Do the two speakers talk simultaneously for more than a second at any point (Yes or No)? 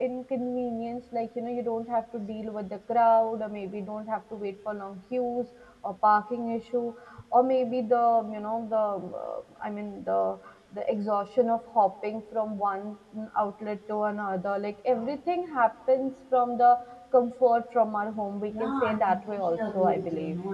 Yes